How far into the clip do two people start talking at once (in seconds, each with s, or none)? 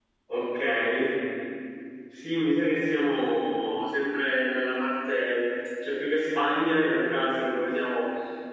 none